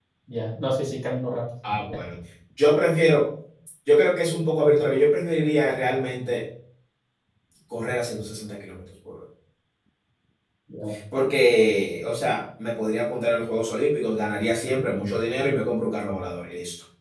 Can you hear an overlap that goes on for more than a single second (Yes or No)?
No